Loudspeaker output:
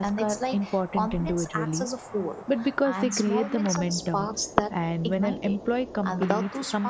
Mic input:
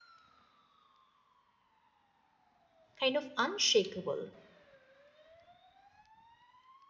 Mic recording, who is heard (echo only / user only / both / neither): user only